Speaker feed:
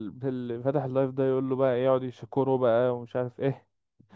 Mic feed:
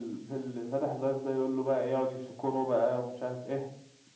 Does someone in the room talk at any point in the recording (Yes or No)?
No